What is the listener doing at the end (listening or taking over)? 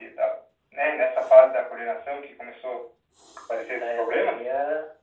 taking over